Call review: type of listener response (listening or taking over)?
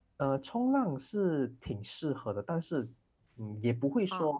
listening